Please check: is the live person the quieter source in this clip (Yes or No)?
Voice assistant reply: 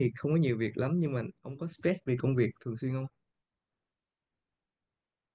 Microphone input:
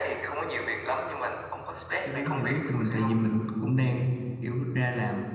No